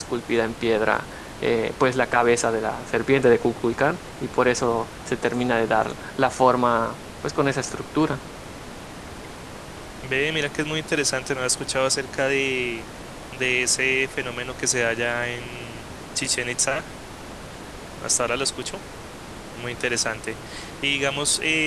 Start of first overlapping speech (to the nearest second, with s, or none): none